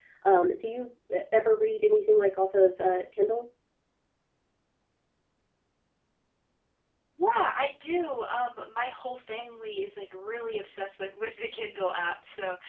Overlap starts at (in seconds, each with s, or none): none